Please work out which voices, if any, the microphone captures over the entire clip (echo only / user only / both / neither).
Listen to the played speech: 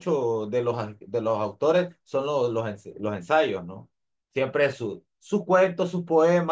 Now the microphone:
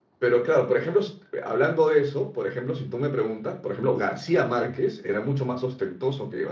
user only